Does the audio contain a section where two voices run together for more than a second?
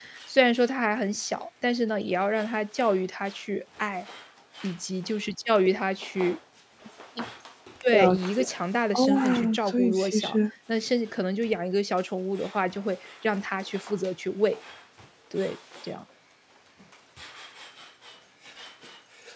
Yes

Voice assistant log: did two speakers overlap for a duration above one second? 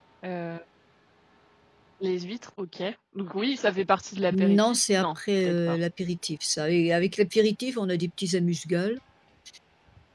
Yes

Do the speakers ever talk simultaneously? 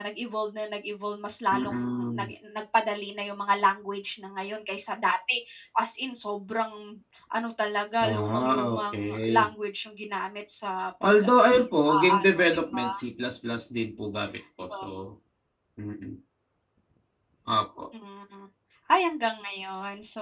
Yes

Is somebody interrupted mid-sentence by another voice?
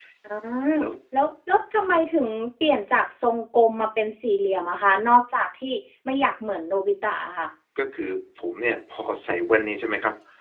No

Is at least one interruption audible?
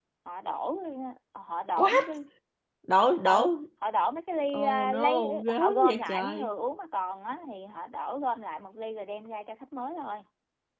Yes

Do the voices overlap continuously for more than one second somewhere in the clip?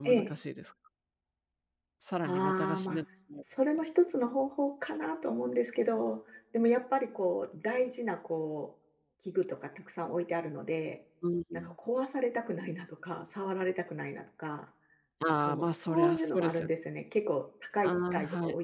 Yes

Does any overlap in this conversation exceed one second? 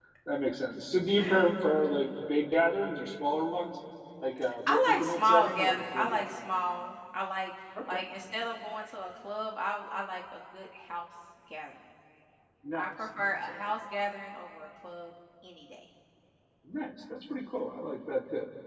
Yes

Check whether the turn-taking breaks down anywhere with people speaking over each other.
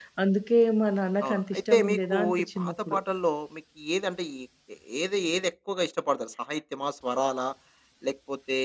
Yes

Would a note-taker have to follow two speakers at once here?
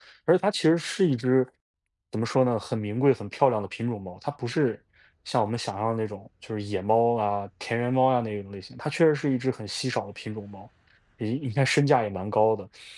No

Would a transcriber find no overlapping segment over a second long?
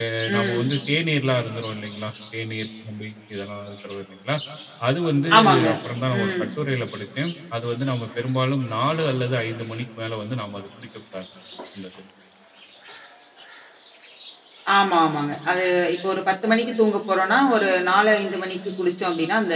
Yes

